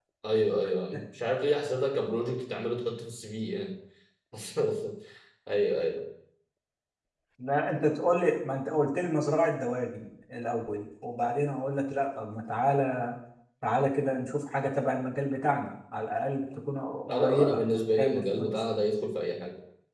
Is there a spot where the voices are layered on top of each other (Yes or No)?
Yes